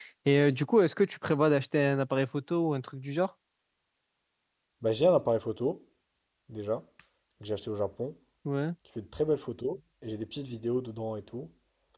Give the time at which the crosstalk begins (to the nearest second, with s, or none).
none